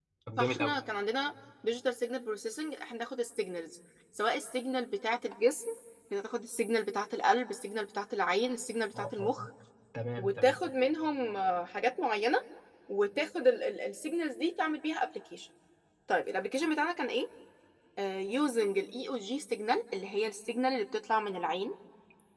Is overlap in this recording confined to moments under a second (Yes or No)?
Yes